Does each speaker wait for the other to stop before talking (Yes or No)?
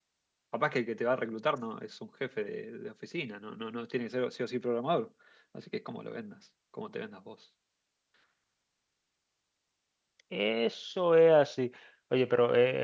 Yes